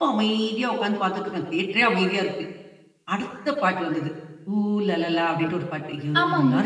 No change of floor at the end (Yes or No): Yes